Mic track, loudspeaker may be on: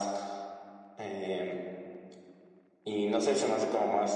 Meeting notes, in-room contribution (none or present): none